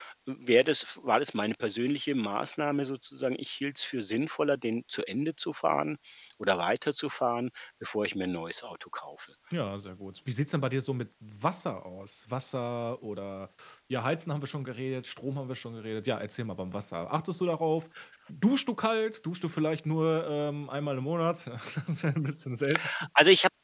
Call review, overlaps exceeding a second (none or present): none